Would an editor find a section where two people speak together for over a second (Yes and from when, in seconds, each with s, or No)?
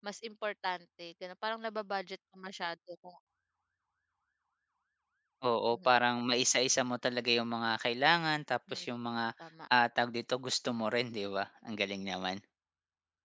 No